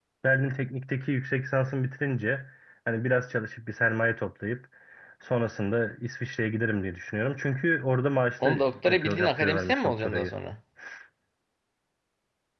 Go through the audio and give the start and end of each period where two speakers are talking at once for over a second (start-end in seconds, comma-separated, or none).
8.4-10.3